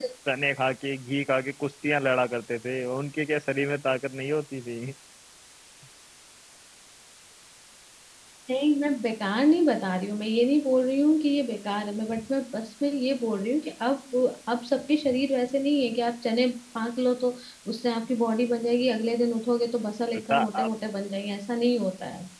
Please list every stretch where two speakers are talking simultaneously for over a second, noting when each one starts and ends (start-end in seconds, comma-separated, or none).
none